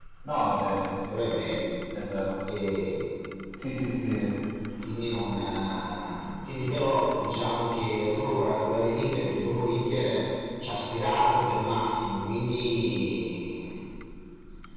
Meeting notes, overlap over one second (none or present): none